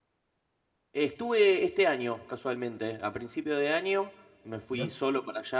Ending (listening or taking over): listening